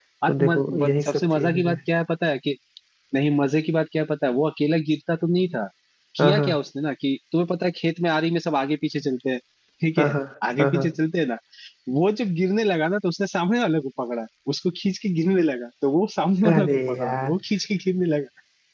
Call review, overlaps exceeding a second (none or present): present